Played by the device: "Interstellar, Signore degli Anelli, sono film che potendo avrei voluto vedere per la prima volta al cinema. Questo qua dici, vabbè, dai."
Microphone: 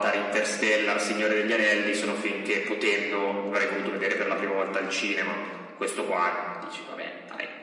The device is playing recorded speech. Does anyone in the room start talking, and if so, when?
none

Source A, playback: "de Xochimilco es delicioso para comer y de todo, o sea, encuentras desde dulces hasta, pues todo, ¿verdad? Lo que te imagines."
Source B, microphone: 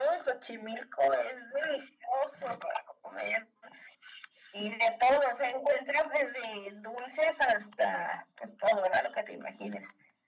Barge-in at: none

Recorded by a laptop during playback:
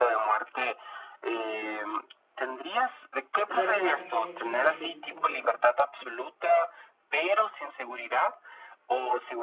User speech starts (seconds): 3.5 s

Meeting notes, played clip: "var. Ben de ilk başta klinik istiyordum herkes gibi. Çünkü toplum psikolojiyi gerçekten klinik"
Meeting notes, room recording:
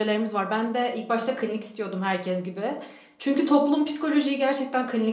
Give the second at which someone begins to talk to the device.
none

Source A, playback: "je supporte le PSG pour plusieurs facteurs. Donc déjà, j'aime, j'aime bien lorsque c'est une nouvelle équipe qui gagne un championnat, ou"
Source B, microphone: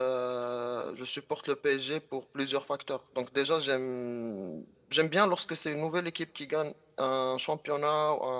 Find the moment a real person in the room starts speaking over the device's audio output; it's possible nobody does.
none

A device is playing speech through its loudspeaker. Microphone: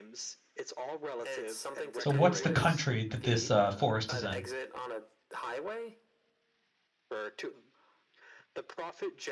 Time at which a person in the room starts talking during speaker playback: 2.0 s

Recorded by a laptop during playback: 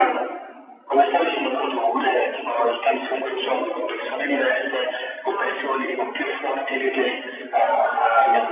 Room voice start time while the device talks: 5.3 s

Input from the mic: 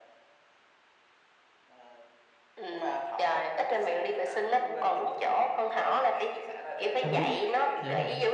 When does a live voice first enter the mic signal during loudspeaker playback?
7.0 s

